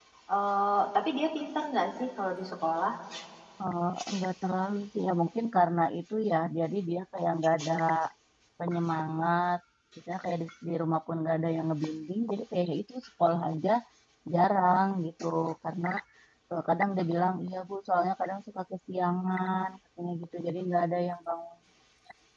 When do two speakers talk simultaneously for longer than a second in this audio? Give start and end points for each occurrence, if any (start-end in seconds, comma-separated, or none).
none